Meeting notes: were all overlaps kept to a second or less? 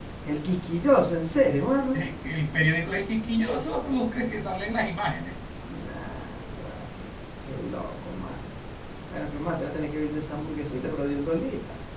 Yes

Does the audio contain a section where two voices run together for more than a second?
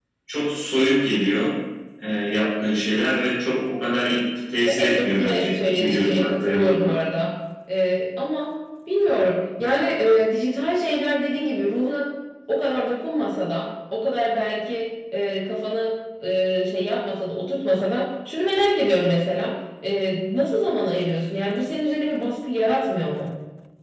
Yes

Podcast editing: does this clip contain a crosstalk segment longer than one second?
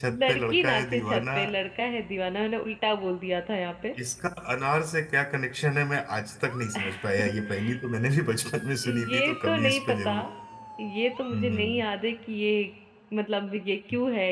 Yes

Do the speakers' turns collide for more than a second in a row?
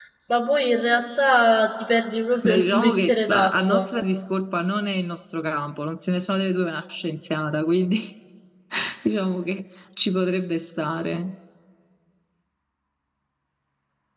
Yes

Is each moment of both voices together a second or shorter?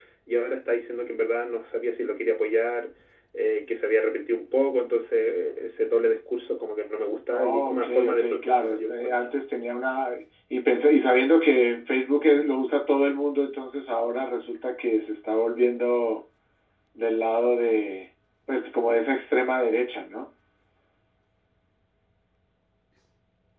No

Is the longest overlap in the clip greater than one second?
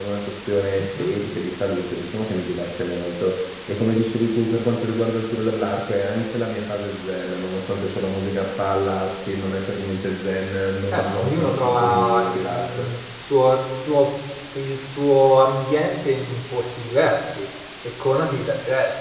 Yes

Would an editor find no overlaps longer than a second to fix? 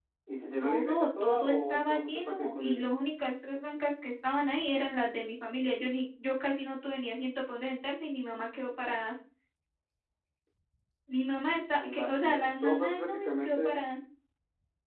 No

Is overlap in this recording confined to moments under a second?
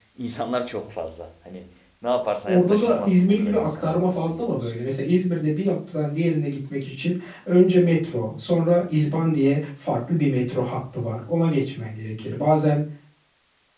No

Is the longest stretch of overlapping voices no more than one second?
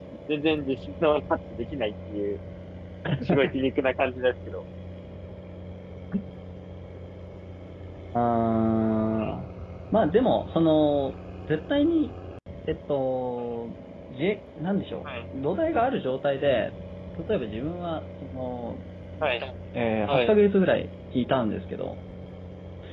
Yes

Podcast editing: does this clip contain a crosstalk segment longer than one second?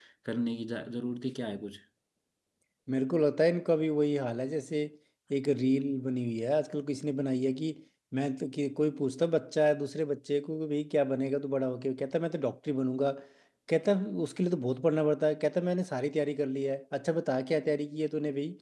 No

